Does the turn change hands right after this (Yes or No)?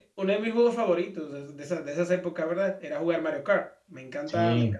No